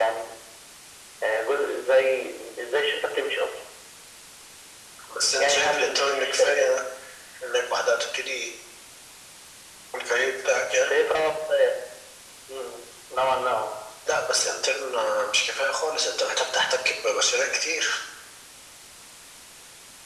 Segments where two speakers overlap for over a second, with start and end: 5.4-6.7

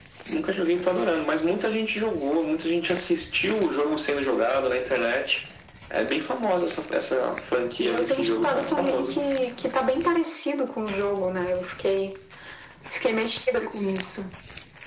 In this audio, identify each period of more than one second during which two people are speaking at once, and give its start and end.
7.8-9.2

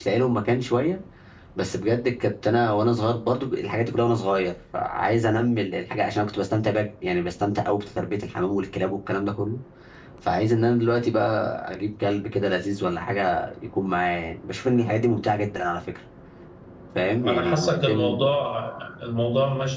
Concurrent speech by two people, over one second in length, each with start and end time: 16.9-18.2

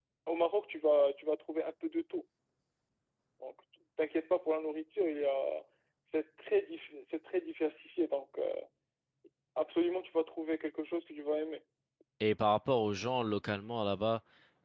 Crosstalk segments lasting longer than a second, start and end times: none

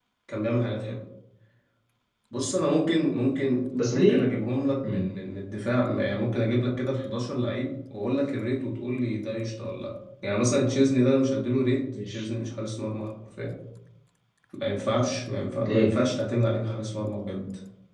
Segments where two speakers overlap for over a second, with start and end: none

